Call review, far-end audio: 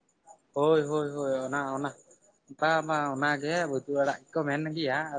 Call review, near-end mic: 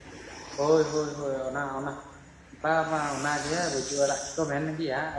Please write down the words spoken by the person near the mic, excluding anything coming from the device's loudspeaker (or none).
none